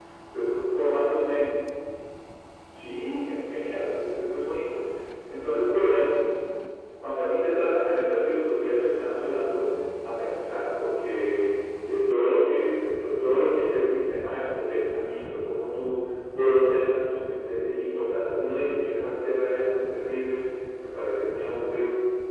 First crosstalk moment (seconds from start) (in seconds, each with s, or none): none